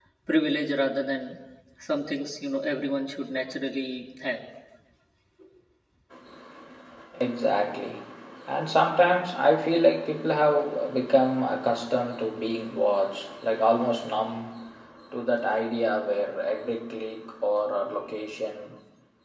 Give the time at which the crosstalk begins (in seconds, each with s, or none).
none